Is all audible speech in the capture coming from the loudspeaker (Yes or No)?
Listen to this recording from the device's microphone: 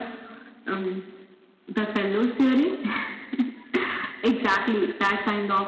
Yes